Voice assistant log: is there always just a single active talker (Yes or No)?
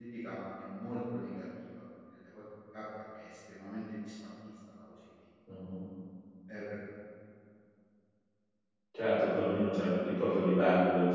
Yes